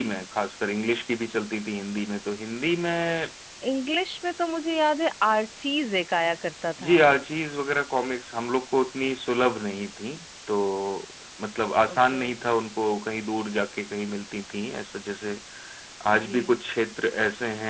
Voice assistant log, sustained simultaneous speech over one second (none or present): none